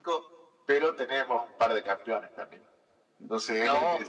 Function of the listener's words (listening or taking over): listening